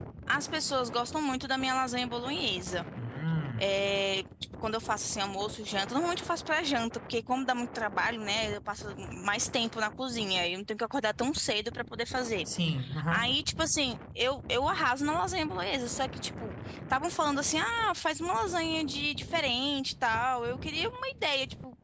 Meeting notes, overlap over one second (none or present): none